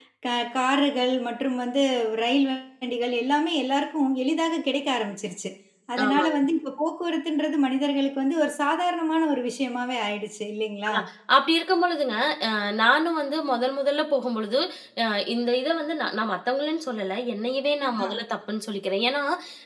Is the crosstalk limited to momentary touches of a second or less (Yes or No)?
Yes